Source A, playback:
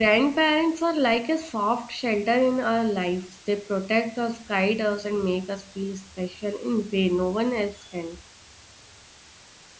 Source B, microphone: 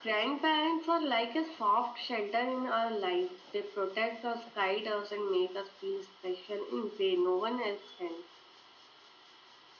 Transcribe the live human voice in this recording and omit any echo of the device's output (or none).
none